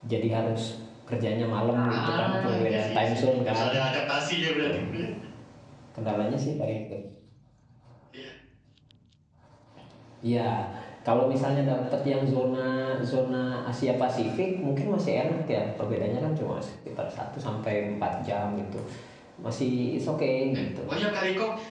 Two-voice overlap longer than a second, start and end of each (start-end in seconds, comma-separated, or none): 1.8-3.7